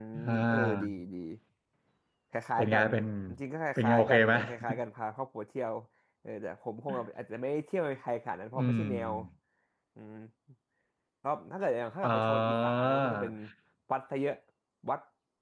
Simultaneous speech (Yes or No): Yes